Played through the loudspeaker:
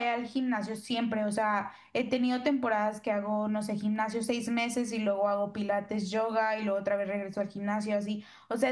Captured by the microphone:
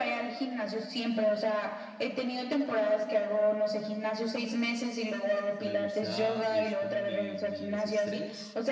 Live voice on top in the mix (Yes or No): No